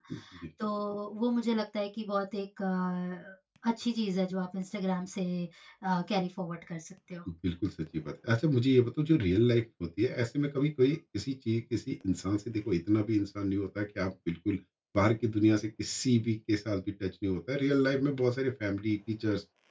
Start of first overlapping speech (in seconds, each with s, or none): none